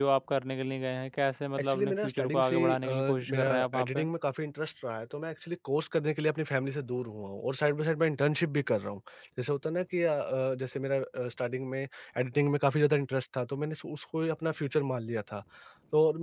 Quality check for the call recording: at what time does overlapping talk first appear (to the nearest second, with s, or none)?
2 s